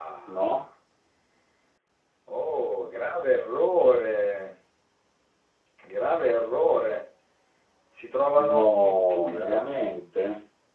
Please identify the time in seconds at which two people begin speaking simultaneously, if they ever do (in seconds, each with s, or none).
8.4 s